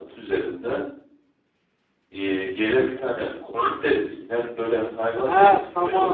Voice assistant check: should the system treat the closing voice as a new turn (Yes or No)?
Yes